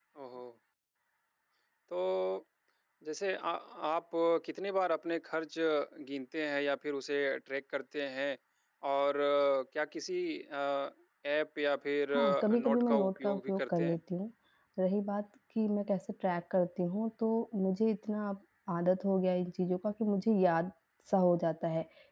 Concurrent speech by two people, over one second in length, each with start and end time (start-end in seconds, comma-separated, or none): 12.1-14.0